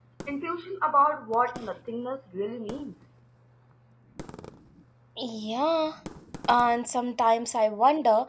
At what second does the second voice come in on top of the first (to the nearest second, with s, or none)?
none